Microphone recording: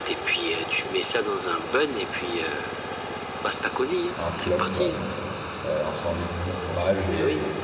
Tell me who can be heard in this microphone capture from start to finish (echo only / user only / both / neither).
both